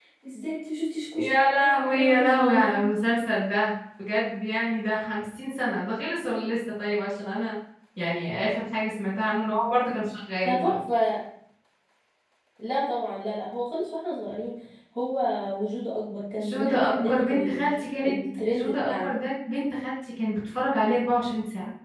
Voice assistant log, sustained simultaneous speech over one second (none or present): present